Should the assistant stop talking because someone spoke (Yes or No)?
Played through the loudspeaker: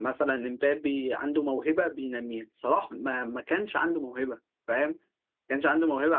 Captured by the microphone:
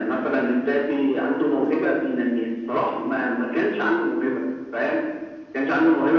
No